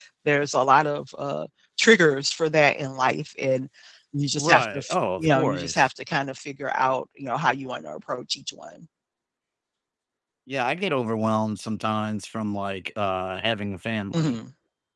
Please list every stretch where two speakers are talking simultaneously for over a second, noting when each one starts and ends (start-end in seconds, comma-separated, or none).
4.4-5.8